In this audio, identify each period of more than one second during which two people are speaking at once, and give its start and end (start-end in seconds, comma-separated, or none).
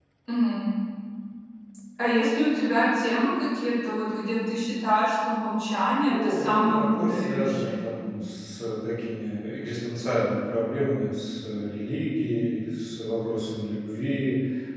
6.1-8.0